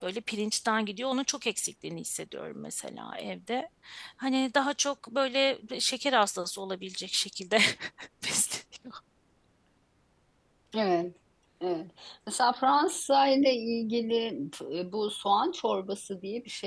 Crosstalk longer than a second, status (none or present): none